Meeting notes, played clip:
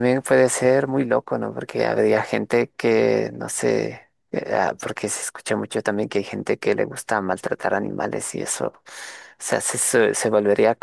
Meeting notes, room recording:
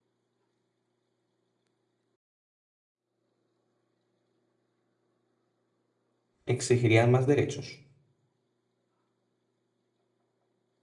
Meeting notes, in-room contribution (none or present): present